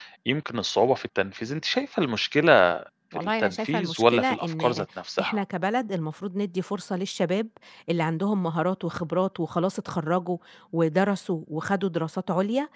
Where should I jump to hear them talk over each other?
3.1 s

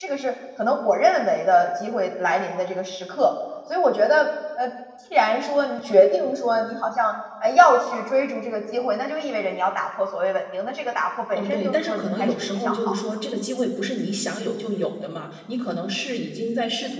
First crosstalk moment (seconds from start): 11.3 s

